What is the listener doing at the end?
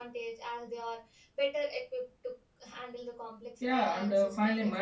taking over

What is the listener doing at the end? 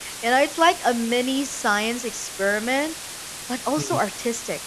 listening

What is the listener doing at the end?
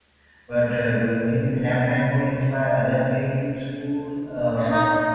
taking over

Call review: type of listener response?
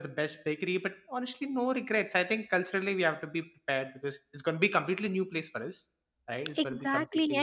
taking over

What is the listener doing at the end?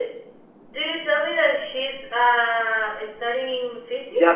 taking over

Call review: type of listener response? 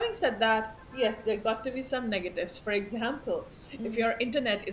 listening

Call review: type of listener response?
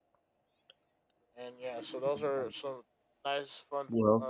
listening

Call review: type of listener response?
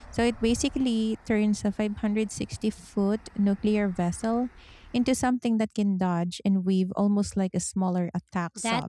taking over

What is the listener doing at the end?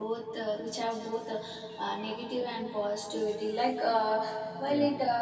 listening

